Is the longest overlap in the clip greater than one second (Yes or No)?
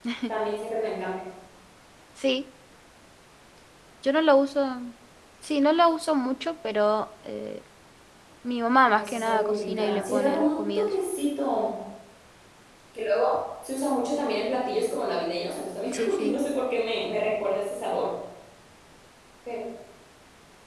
Yes